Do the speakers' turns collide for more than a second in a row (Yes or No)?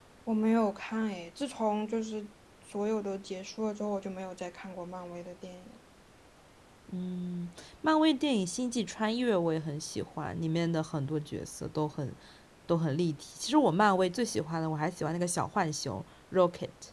No